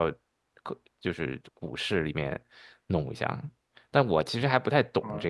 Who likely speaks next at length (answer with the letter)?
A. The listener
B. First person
B